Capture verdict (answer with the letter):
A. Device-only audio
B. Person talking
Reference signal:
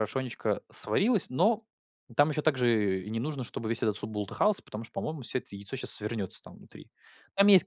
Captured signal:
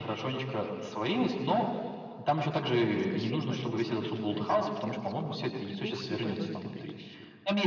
B